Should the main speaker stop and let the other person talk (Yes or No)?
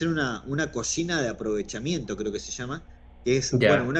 No